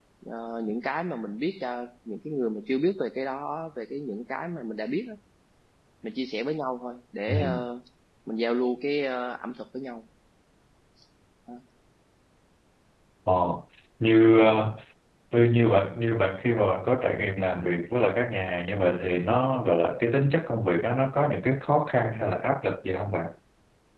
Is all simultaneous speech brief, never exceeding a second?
Yes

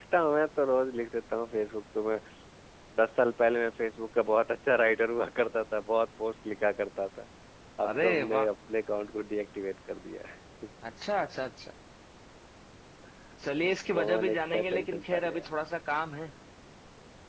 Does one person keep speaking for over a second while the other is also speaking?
Yes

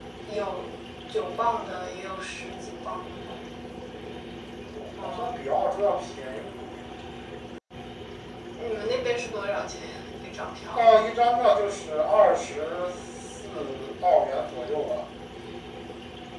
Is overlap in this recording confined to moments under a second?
Yes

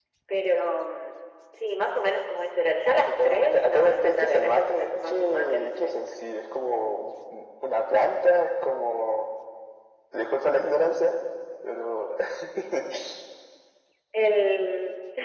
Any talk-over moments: Yes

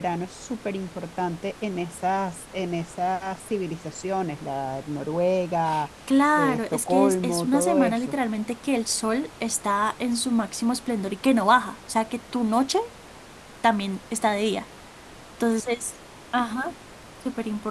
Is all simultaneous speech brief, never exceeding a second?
No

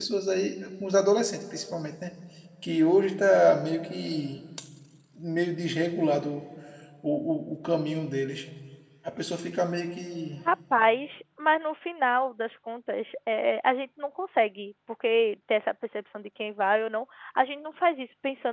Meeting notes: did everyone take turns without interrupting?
Yes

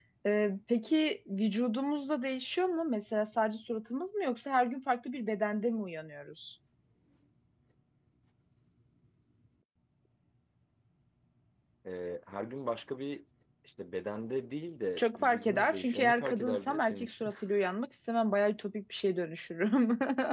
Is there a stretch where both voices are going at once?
Yes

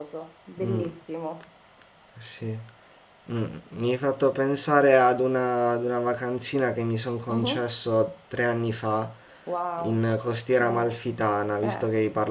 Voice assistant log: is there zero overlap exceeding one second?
Yes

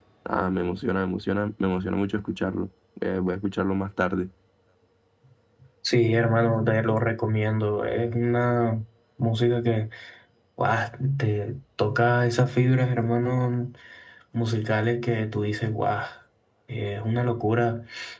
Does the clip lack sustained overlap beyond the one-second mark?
Yes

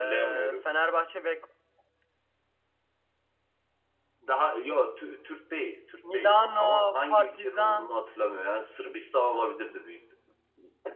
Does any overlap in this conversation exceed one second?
Yes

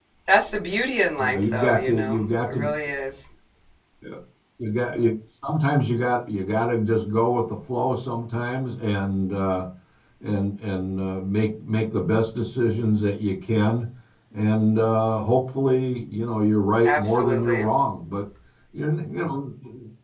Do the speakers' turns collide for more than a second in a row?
Yes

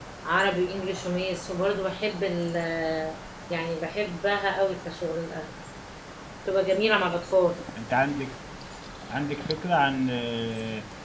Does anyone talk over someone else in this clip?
No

